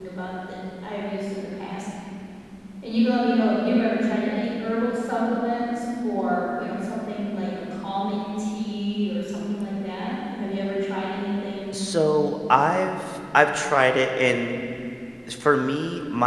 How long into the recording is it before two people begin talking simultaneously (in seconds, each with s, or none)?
none